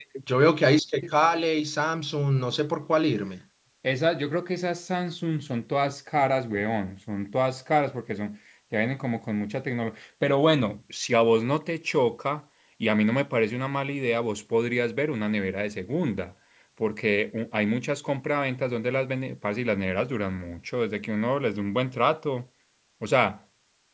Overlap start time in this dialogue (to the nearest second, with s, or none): none